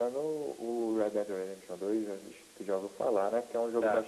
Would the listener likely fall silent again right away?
Yes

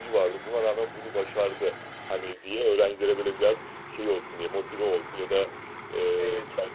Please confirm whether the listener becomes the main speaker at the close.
No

